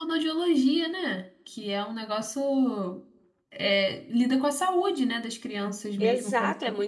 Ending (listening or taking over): taking over